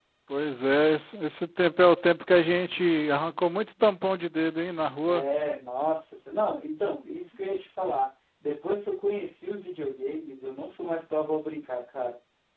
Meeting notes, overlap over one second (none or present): none